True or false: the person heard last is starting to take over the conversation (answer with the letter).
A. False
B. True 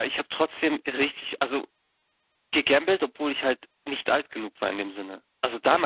A